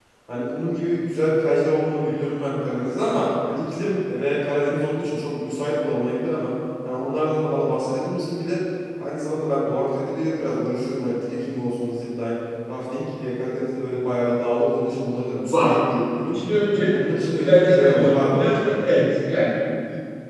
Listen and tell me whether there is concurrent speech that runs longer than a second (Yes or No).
Yes